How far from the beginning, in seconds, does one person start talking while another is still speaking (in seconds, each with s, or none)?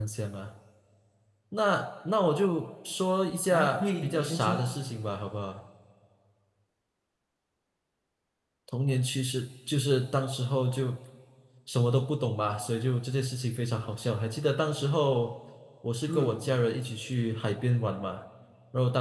3.5 s